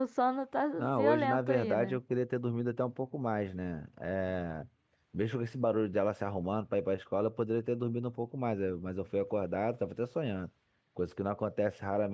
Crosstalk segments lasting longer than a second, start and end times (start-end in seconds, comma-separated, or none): 0.8-2.0